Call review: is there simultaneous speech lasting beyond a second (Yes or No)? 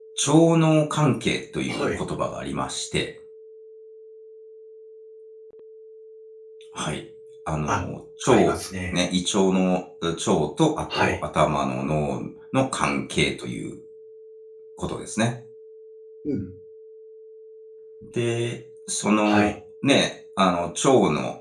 No